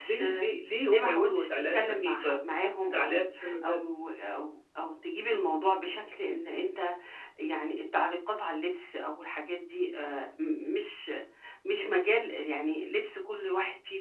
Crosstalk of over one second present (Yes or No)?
Yes